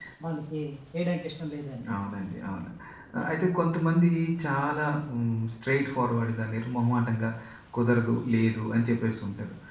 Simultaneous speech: No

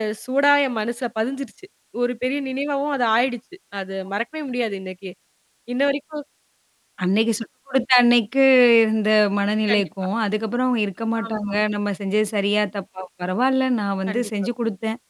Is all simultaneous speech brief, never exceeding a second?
Yes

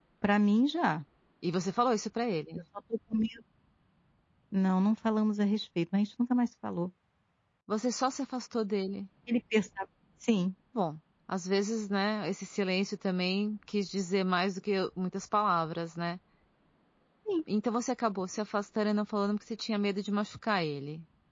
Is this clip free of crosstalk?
Yes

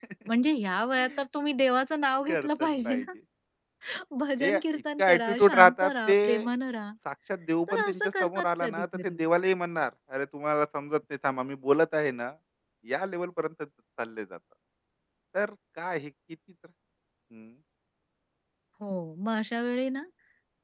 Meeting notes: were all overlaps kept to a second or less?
No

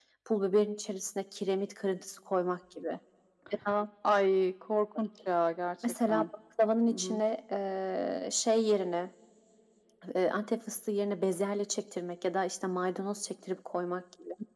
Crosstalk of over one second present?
No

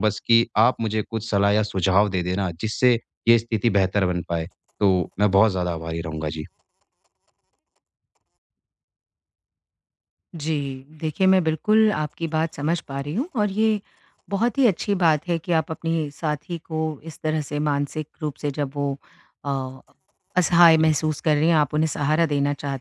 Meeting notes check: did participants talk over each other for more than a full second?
No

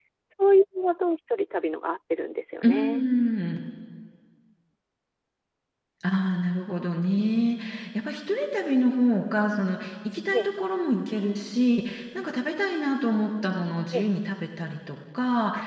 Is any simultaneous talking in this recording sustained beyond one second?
No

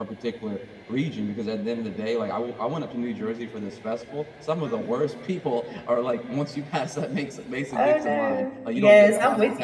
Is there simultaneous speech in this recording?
Yes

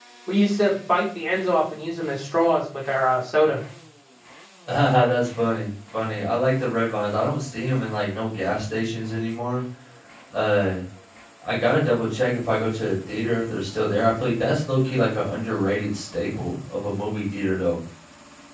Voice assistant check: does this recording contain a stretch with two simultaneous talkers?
No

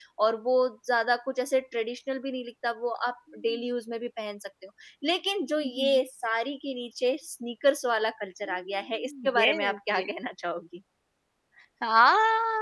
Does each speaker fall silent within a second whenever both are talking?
No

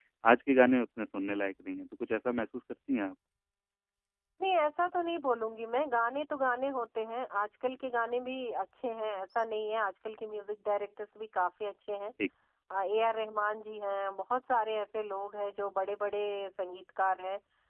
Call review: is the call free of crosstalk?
Yes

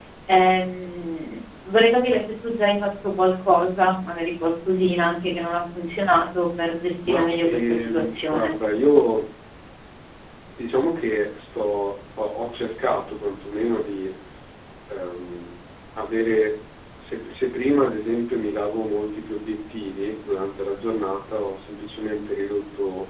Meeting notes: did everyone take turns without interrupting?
No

